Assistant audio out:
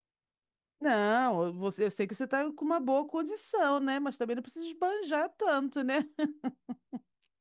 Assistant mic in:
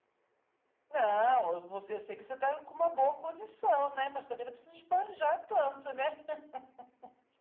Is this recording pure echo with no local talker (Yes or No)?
Yes